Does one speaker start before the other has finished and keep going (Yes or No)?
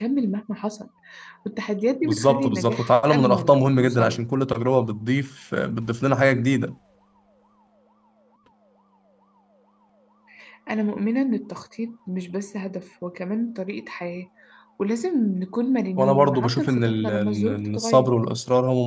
Yes